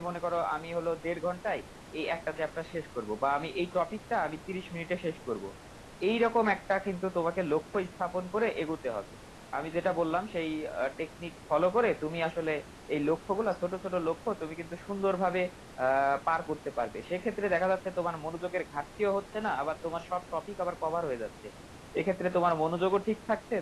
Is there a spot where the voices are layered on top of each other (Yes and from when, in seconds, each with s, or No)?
No